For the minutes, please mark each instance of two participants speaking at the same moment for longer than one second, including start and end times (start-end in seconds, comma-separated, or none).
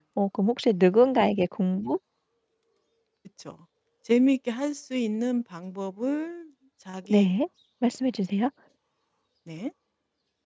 none